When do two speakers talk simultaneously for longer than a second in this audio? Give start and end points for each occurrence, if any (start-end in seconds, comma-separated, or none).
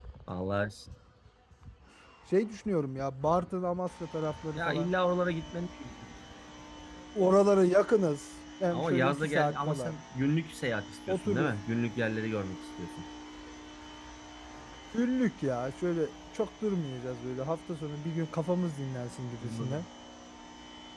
8.7-10.0